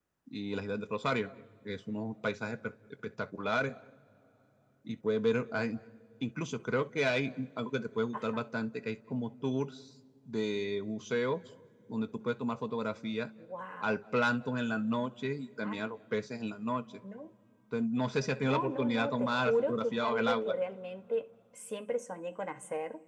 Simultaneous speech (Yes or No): Yes